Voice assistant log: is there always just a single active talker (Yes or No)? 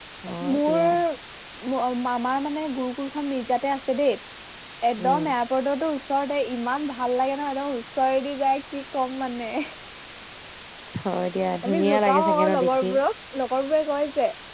No